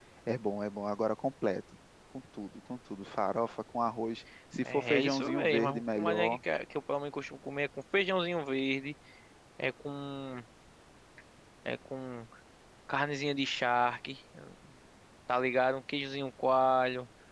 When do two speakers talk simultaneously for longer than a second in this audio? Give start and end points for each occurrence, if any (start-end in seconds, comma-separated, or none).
4.7-6.4